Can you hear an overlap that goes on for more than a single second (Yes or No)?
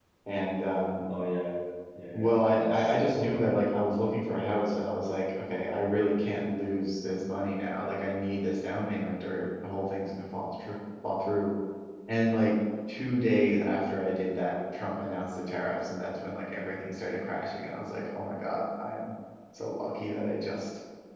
Yes